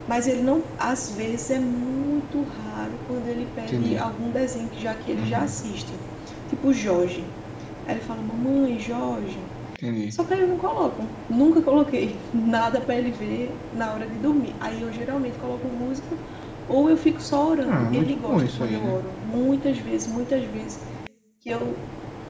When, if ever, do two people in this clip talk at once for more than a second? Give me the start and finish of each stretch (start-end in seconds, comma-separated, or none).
17.6-19.0